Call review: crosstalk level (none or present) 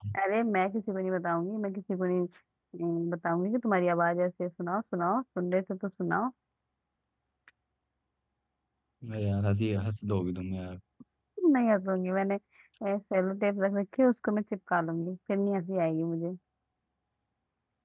none